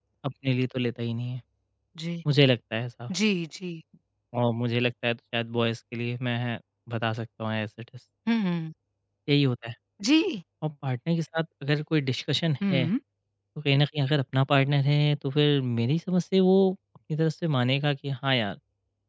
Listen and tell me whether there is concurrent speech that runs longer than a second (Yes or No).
No